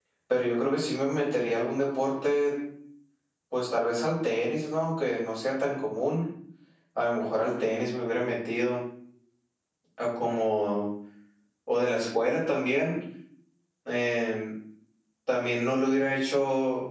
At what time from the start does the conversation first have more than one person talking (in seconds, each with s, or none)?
none